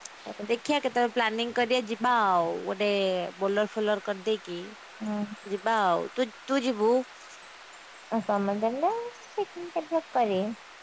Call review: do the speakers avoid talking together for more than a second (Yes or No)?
Yes